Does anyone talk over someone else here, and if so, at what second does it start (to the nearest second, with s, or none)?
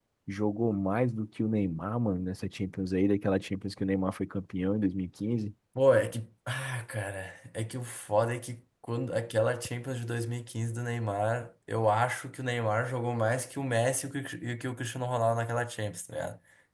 none